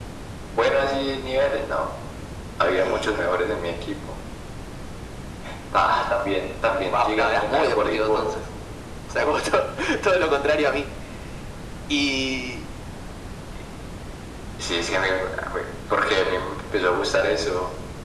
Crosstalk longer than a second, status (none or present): present